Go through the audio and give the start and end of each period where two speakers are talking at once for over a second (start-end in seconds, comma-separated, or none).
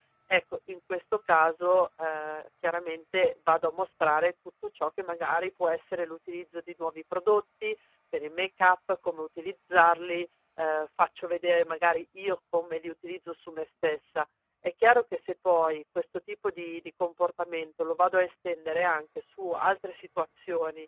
none